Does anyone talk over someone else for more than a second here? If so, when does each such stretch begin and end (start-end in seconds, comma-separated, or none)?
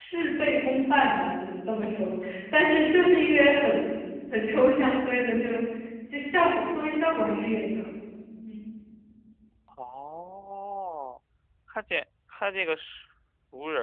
none